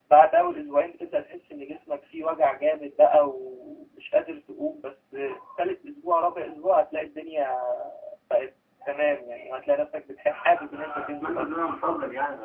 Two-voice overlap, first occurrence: 10 s

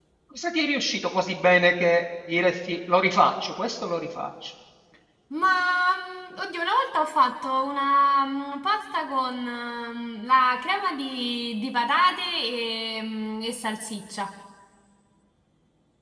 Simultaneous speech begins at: none

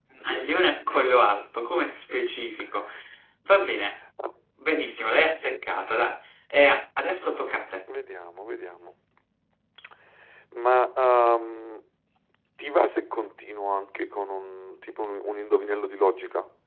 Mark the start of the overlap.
none

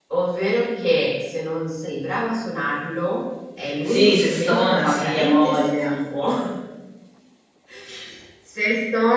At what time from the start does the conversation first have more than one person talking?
4 s

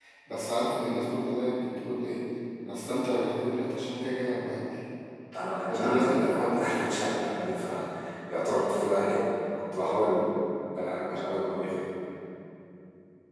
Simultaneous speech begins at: 6 s

